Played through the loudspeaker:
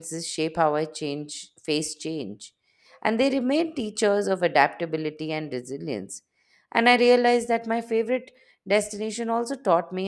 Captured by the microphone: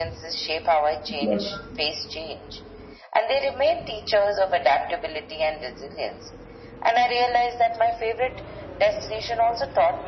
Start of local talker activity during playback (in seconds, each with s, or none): 1.2 s